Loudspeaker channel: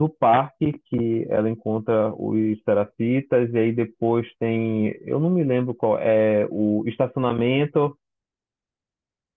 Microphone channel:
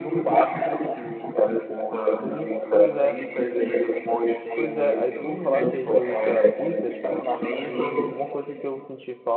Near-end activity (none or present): present